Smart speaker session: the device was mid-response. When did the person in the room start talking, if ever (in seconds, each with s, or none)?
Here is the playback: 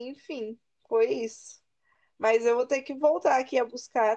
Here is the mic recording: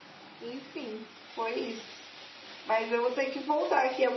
none